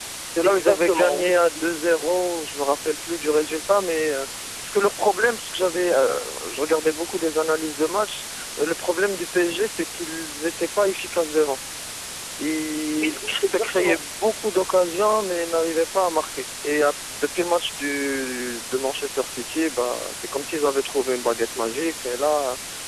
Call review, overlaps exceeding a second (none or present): present